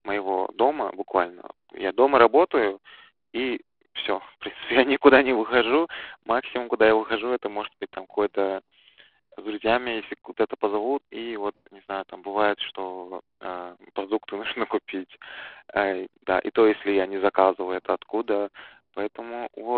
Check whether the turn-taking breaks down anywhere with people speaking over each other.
No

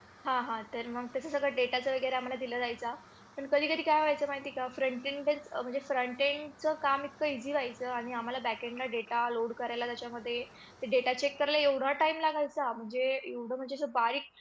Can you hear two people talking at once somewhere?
No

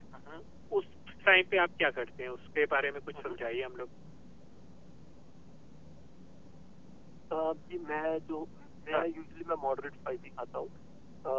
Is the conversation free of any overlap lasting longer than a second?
Yes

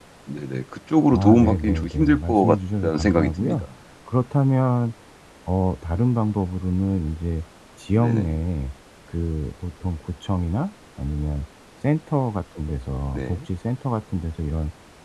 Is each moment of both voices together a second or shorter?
No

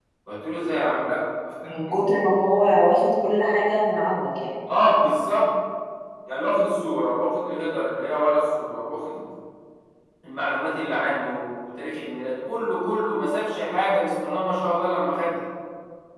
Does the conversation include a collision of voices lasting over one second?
No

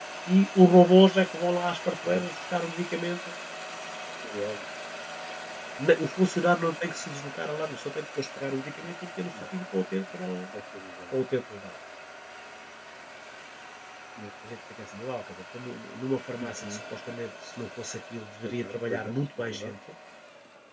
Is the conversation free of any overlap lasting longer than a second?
No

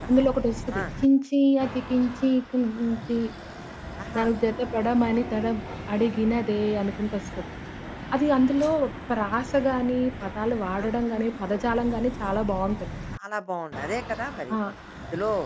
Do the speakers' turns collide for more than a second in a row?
No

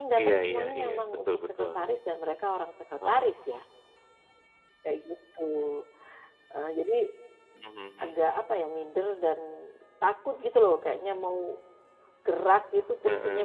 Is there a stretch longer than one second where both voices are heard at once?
Yes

